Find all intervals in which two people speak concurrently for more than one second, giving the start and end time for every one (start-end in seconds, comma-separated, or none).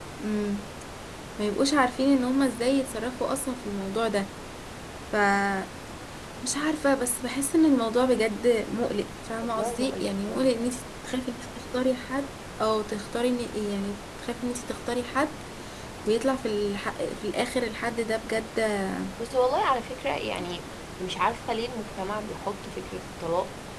9.6-10.8